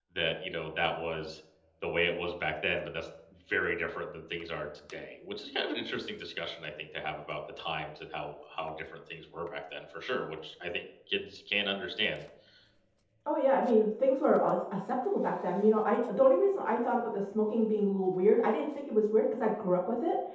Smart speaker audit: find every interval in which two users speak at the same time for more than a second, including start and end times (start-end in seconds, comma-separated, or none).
none